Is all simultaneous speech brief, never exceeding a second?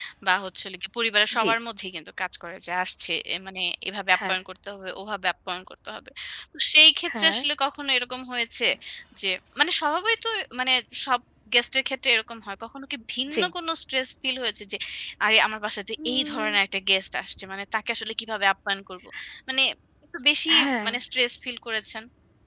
Yes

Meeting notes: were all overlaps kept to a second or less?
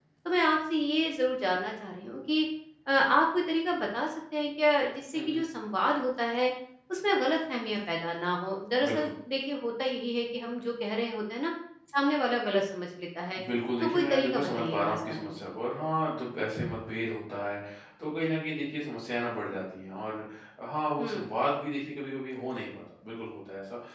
No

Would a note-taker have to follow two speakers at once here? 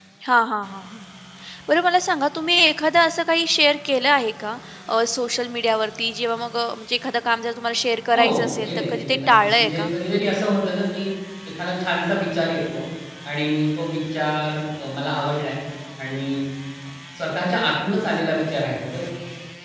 Yes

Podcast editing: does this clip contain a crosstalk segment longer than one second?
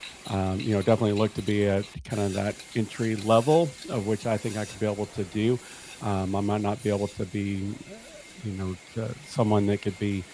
No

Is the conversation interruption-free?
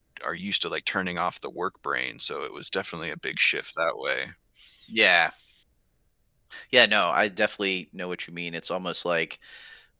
Yes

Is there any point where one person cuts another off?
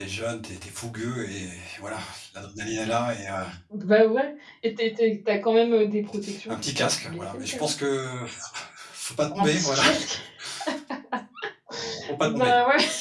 Yes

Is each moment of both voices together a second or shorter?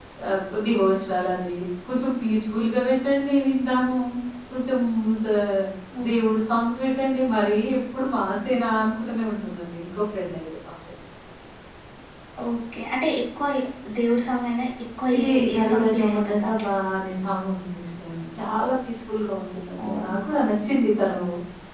No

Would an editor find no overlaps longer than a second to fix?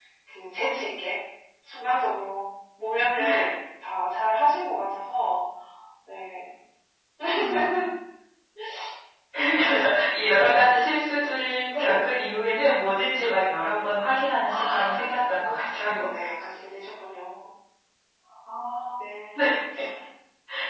No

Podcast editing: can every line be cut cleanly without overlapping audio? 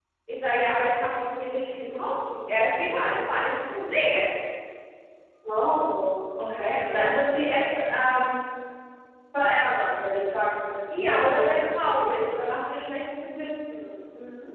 No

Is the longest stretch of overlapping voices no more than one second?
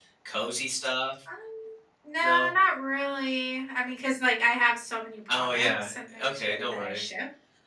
No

